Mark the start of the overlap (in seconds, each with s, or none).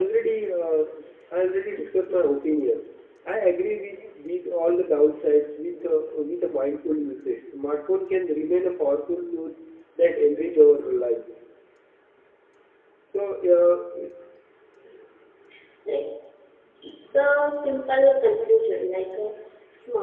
none